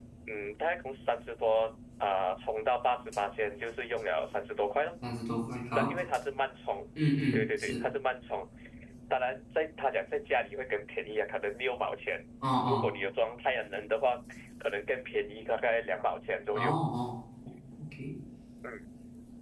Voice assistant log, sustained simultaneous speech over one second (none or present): none